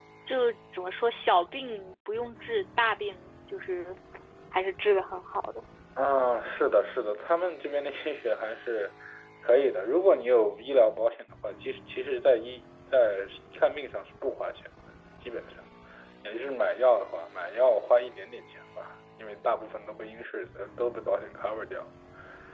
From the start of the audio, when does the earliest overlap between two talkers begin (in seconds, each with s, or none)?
none